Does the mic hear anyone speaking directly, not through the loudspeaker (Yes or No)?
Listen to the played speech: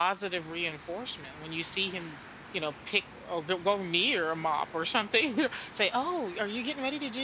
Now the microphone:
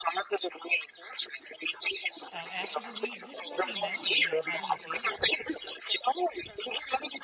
Yes